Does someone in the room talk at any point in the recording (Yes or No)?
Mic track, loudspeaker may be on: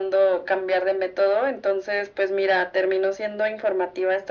No